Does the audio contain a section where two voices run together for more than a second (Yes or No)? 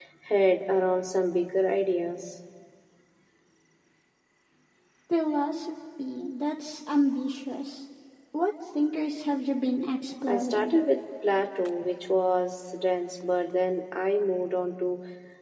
No